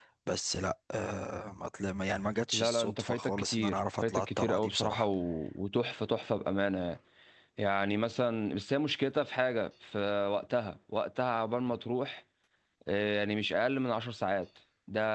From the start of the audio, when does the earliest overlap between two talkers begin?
2.5 s

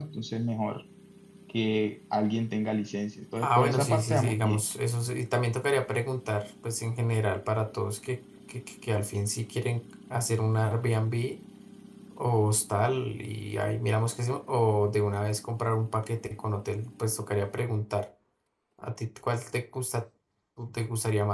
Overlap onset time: 3.4 s

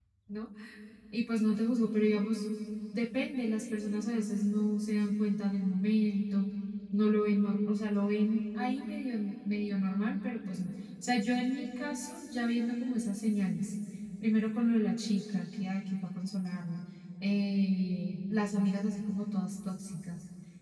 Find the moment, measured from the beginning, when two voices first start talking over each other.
none

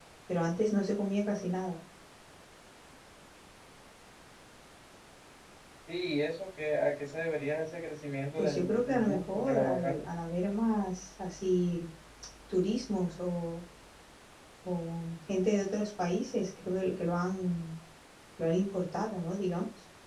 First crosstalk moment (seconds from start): 8.3 s

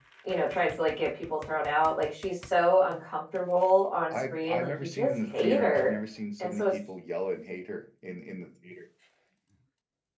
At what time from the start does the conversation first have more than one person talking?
4.1 s

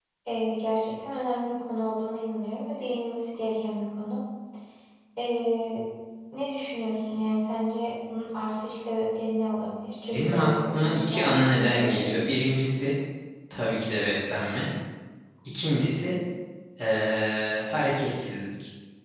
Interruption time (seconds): 10.1 s

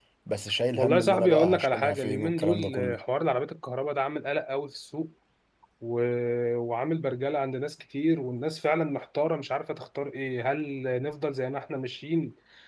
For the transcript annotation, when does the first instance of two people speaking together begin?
0.8 s

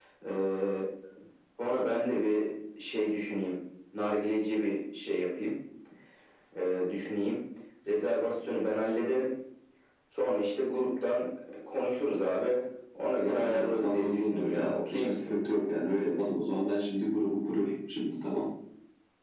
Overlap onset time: 13.2 s

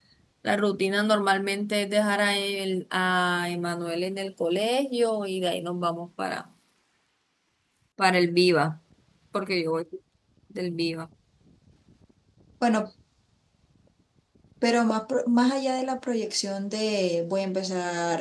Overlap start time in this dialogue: none

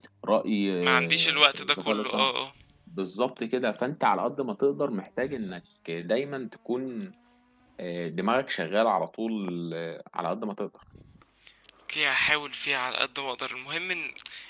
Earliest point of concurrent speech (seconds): 0.8 s

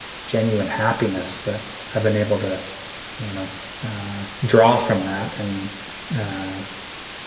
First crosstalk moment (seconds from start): none

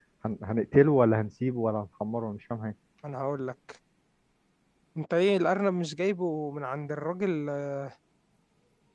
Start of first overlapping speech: none

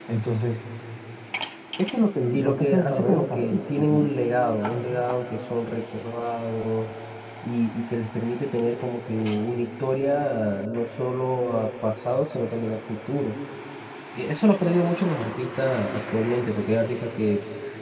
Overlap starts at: 2.3 s

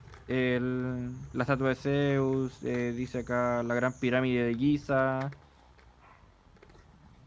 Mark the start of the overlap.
none

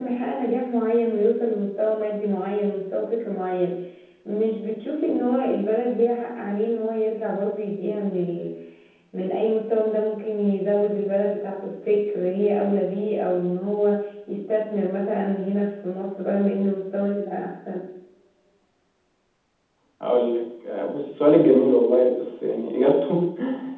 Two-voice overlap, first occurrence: none

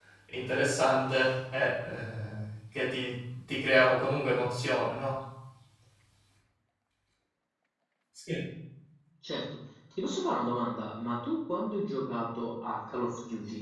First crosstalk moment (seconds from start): none

